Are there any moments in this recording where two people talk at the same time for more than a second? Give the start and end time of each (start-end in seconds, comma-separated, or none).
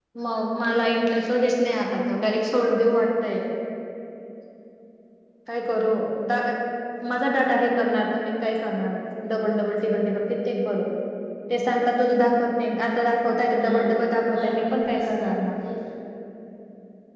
14.3-15.6